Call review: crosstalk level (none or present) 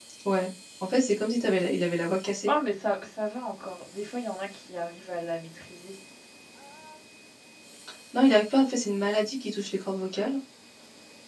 none